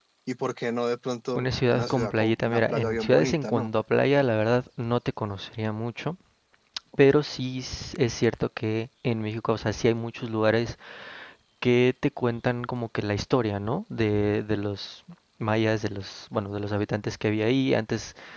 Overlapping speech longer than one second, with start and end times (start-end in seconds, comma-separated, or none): 1.4-3.7